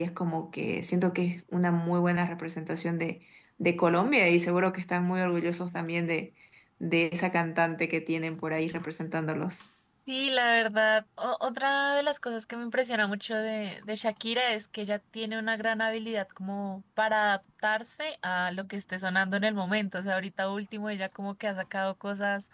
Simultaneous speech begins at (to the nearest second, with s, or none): none